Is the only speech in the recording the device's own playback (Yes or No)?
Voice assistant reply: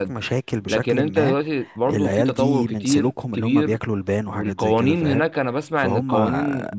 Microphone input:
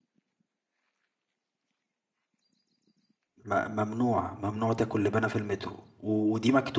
No